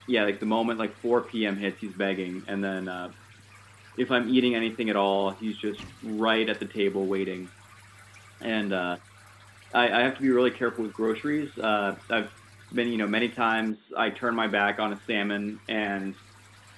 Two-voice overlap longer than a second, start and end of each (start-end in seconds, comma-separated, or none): none